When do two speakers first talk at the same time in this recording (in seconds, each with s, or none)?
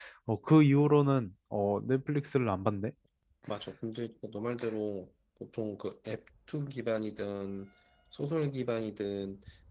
none